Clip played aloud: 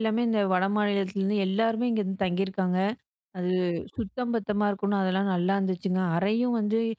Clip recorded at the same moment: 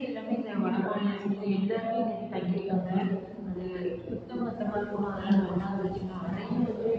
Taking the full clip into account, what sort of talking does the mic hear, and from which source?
both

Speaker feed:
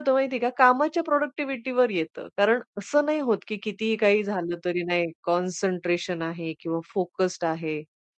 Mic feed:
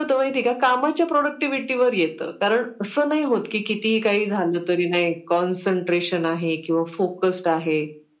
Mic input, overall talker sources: echo only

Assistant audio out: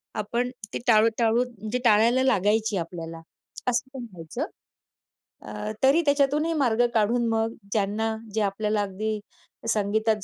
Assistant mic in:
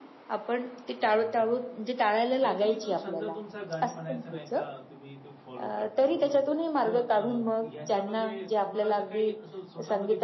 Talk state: both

